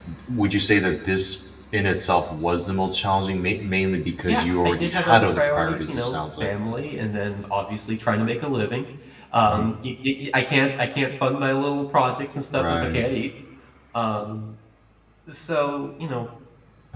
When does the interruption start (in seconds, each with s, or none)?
4.2 s